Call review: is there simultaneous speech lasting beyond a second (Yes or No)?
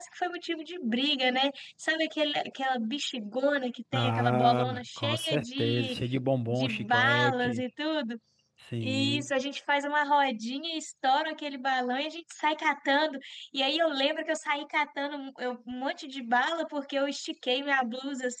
Yes